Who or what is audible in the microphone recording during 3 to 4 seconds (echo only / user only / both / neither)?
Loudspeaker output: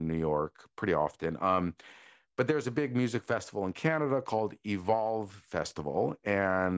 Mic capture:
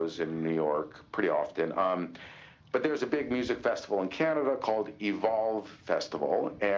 echo only